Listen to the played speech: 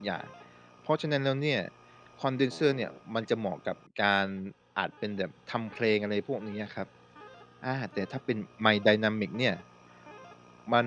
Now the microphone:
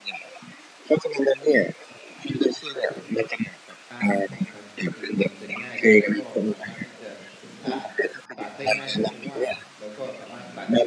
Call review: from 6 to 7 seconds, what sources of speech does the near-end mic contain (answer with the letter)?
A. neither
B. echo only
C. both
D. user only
C